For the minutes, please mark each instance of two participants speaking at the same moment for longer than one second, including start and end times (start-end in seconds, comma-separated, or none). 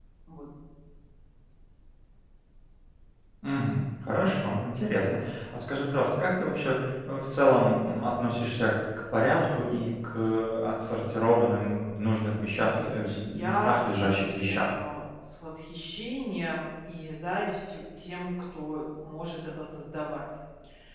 12.6-14.7